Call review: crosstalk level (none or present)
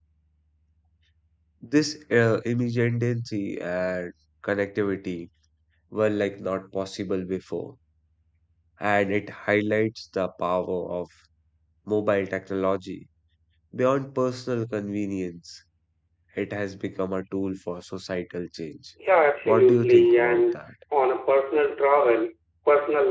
present